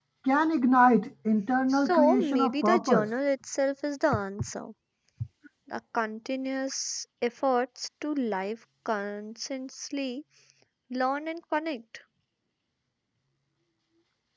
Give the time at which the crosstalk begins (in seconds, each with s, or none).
1.7 s